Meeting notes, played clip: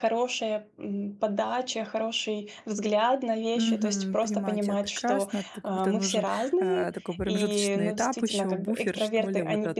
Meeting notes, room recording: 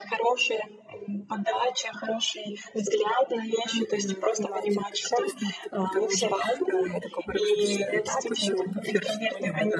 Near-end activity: none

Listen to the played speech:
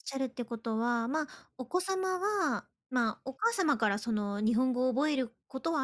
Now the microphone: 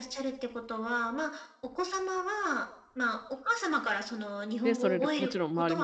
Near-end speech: present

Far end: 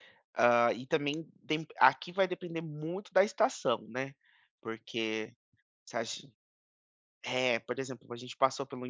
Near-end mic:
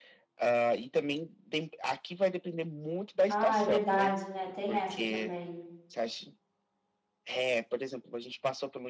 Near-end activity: present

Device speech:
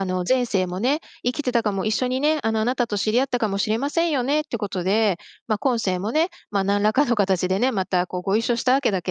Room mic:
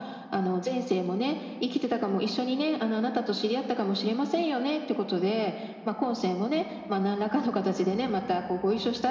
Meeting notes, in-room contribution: none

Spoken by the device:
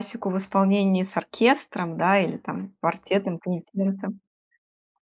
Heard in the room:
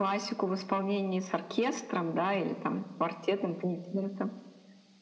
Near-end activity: none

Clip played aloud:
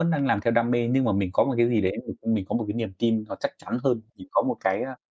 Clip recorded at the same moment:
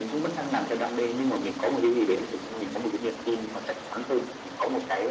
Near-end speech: none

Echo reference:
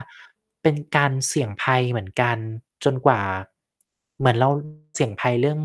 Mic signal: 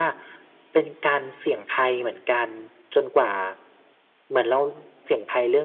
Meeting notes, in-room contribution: none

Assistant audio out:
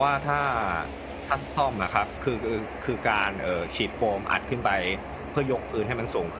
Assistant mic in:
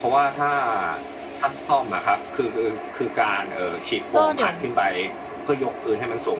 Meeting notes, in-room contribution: present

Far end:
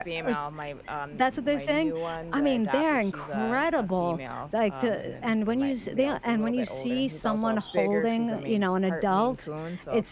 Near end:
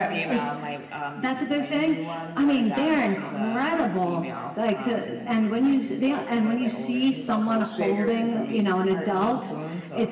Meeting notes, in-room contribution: none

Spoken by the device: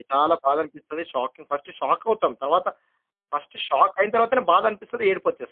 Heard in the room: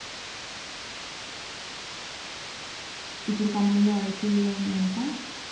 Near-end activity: present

